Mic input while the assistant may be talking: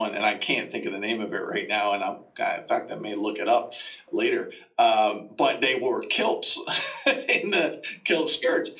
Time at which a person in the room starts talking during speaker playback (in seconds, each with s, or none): none